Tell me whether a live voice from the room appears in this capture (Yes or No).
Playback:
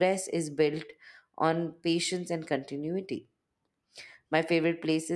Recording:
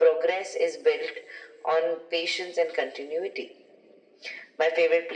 No